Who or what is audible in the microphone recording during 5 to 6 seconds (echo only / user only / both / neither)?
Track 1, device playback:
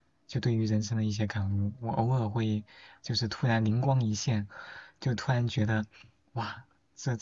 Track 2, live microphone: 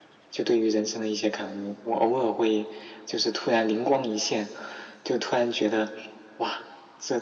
echo only